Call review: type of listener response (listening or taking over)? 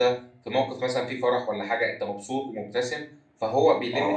taking over